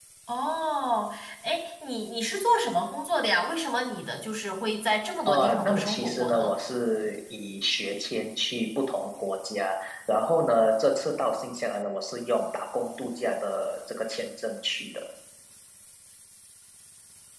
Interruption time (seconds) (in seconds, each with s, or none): 5.2 s